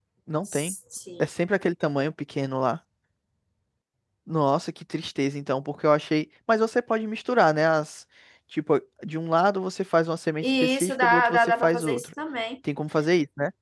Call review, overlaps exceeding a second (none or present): present